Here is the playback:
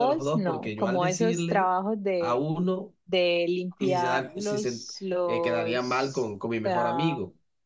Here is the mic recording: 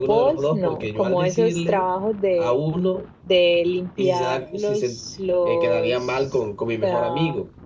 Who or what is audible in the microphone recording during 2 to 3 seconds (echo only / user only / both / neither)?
echo only